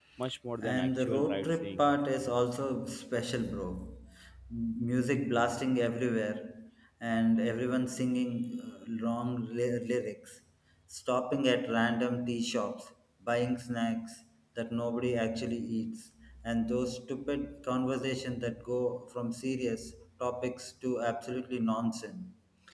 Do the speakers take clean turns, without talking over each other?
No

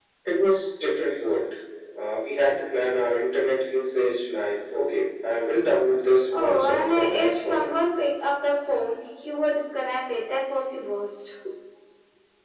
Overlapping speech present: Yes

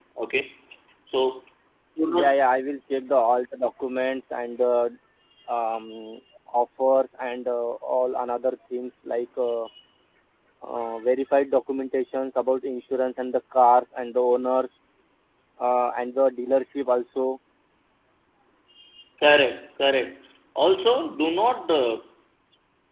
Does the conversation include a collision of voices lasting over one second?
No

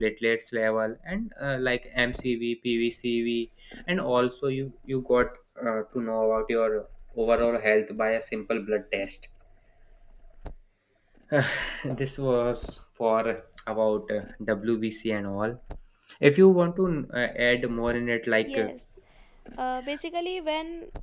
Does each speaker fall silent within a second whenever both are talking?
Yes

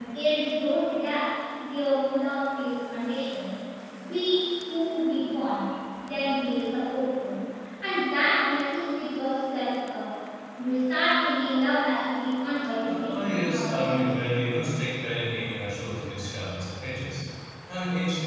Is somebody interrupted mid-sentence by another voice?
Yes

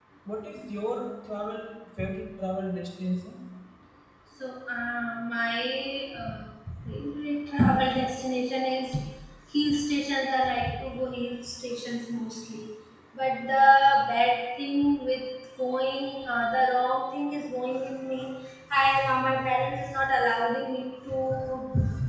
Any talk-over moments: No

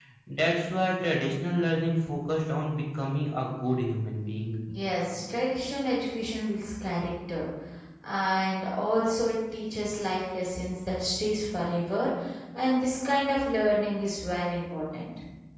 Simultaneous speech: No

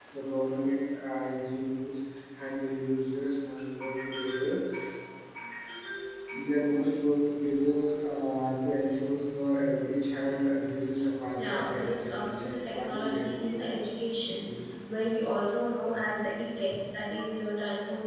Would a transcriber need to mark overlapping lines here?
Yes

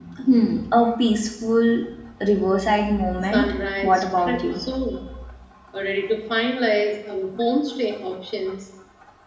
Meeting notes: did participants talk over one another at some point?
Yes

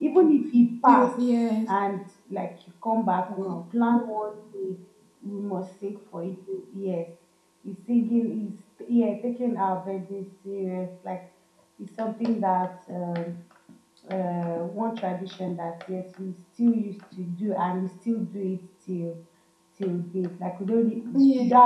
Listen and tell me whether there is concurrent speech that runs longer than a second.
No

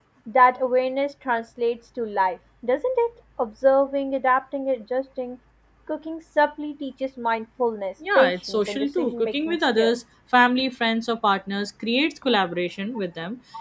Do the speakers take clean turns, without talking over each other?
No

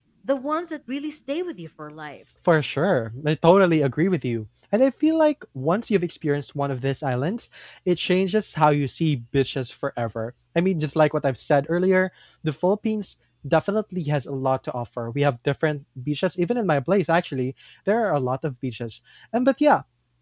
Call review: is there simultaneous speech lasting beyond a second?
No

